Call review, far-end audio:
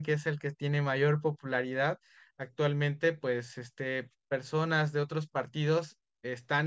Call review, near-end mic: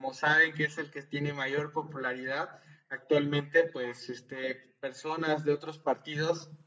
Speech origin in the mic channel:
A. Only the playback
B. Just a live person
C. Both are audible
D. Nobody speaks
A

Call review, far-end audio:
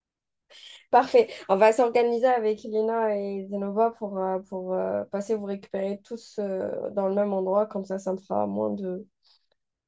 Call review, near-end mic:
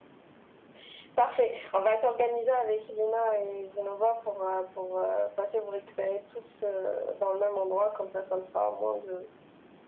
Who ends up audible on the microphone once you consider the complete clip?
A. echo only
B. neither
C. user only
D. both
A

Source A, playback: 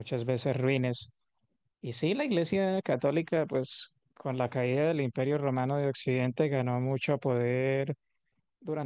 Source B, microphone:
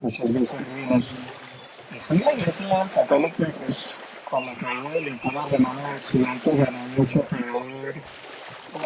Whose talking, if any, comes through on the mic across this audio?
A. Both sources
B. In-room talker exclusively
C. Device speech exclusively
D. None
C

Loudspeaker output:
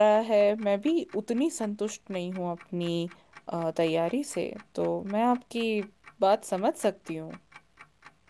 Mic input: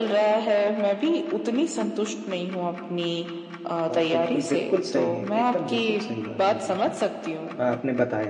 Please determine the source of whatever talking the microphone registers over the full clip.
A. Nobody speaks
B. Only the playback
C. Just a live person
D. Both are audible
D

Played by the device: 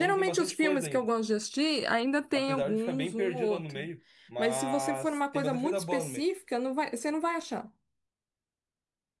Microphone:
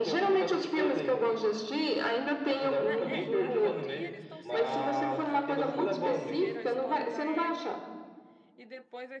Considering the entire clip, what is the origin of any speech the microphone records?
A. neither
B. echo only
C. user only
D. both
D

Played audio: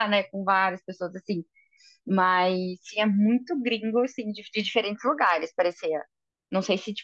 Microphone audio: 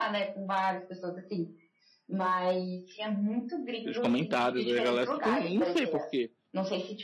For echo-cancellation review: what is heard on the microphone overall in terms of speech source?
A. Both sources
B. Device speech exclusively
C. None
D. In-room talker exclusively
A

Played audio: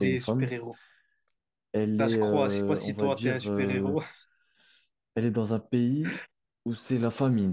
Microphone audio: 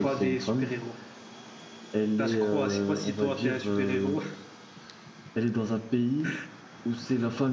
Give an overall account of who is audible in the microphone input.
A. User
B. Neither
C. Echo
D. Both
C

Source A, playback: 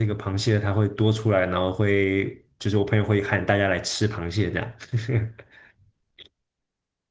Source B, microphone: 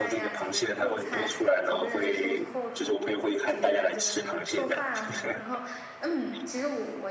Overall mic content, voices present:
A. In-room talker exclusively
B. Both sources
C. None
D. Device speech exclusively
B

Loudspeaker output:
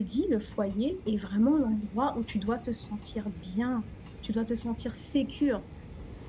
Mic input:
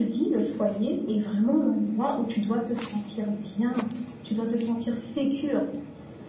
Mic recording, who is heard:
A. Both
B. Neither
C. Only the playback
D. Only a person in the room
C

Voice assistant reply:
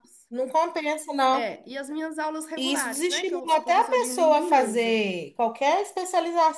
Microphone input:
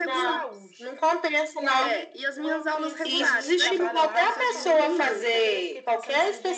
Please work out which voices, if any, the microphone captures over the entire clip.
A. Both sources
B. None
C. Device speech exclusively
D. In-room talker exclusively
A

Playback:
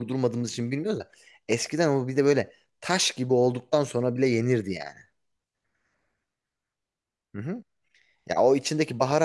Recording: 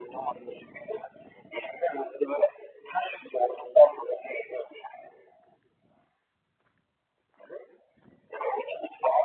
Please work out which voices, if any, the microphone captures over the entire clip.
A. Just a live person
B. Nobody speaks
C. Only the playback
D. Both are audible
C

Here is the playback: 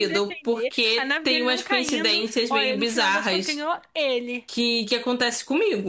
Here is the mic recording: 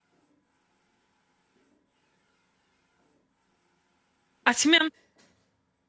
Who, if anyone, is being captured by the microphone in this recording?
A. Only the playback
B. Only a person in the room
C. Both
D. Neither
B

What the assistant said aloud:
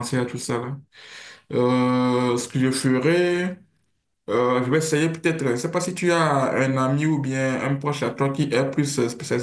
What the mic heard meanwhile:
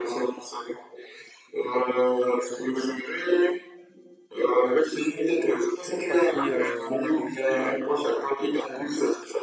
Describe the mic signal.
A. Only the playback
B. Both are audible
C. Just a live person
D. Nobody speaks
B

